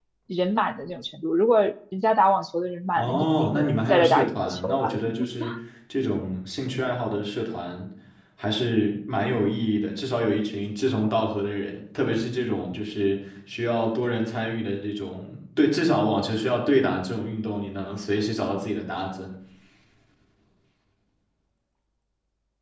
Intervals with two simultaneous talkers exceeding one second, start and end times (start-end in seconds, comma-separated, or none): 3.0-4.9